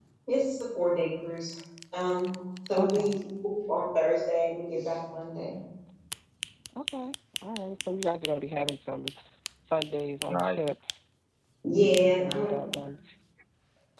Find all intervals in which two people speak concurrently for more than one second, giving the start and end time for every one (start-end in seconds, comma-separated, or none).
none